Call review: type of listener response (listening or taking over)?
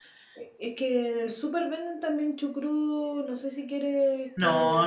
taking over